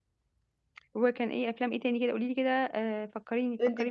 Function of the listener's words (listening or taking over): taking over